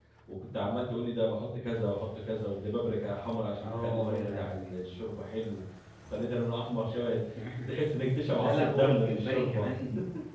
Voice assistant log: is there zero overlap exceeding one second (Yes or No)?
No